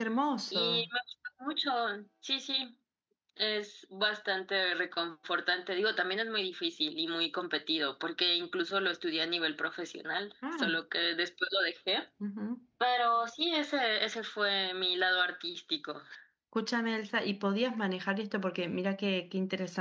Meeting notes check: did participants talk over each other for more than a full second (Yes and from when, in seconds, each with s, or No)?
No